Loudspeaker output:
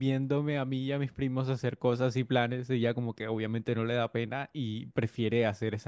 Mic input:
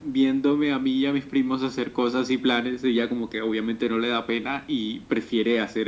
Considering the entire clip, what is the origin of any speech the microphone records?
echo only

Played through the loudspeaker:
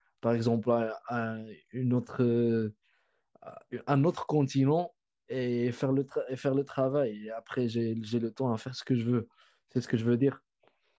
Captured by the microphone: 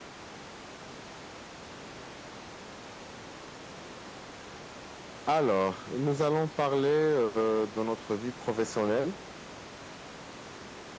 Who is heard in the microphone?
user only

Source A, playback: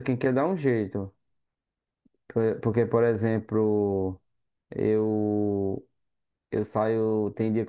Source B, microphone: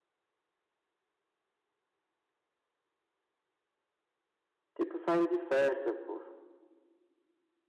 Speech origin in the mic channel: user only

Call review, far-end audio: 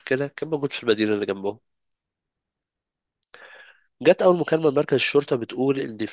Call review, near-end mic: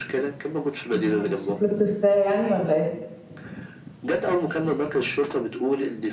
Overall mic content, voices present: both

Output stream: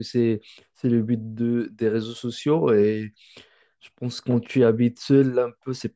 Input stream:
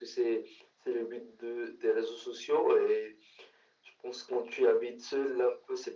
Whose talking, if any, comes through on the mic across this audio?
echo only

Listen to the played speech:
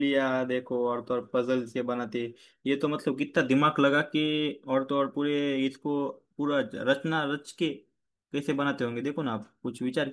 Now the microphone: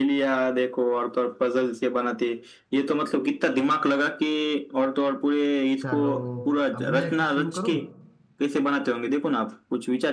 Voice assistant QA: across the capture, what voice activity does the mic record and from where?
both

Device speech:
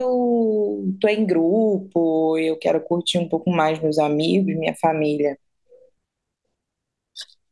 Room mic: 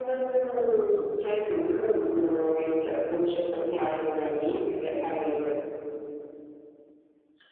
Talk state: echo only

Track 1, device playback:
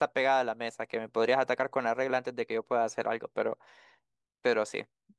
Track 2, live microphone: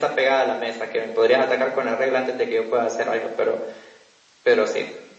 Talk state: echo only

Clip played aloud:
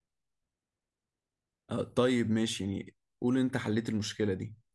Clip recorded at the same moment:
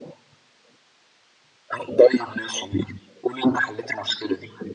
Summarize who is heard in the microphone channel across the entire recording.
echo only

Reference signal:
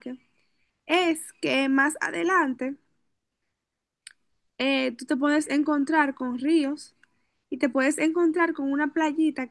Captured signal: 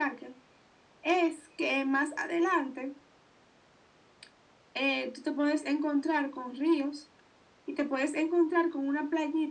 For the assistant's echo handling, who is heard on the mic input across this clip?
echo only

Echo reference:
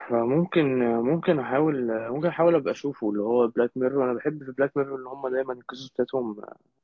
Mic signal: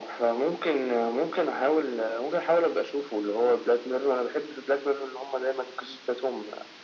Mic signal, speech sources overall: echo only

